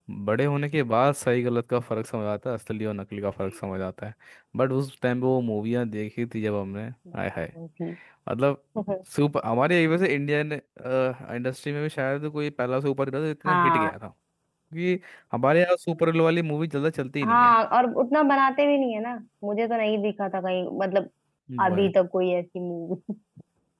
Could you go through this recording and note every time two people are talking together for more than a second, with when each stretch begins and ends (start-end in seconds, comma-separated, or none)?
none